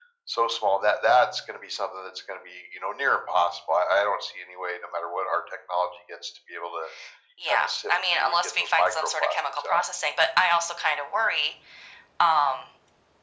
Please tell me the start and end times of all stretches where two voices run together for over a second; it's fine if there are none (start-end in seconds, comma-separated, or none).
7.5-9.8